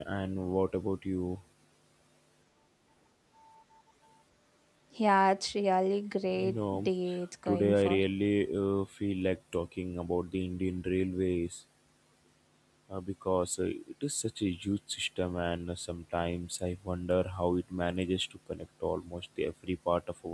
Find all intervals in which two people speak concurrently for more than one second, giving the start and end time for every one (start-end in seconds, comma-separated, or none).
none